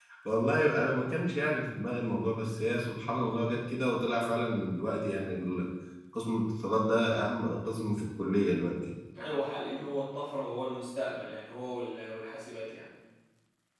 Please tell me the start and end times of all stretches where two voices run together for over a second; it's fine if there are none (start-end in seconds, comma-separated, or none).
none